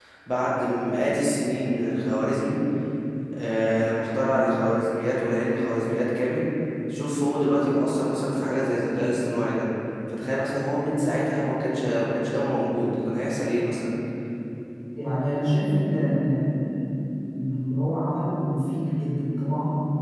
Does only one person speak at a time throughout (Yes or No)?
Yes